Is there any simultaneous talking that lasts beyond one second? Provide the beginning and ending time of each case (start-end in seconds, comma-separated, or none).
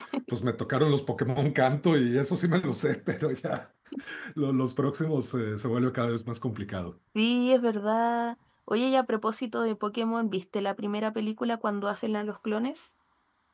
none